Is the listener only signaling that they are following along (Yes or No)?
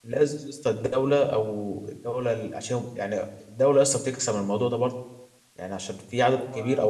Yes